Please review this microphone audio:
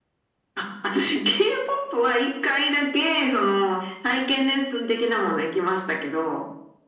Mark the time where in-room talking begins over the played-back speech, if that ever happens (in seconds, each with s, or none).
none